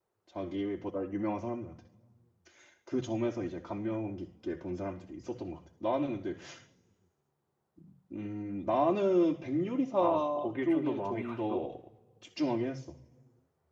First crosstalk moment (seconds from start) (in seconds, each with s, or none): 10.0 s